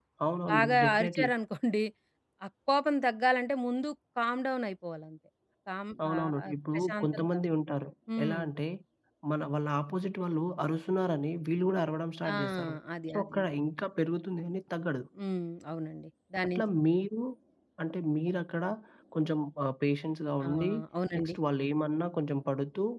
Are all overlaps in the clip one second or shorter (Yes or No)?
No